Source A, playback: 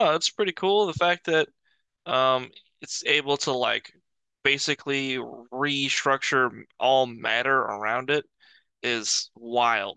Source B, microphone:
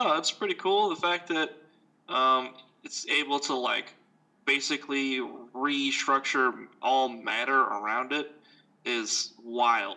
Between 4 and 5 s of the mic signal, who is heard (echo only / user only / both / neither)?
echo only